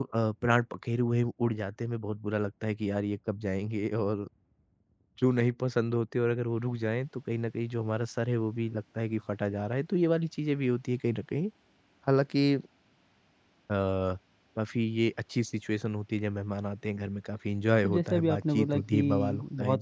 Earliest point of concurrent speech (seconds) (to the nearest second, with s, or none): 18 s